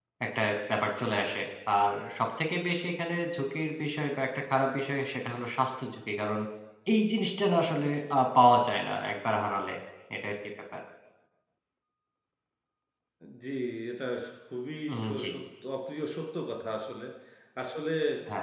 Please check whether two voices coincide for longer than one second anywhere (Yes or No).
No